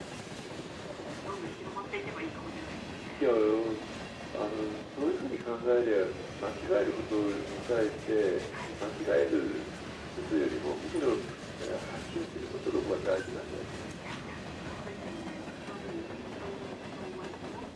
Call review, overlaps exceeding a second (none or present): none